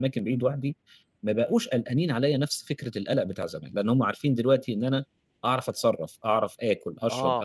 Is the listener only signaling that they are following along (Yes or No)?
No